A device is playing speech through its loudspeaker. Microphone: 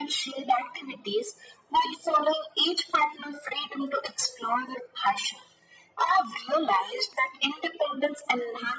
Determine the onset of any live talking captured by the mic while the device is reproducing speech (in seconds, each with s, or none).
none